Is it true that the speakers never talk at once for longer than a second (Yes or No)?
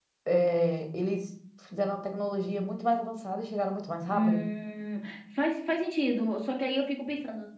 Yes